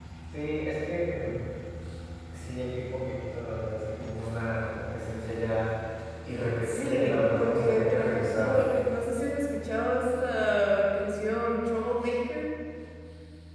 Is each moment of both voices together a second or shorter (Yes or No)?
No